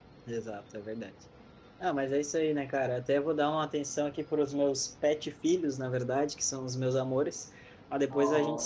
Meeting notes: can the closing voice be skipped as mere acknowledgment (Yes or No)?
Yes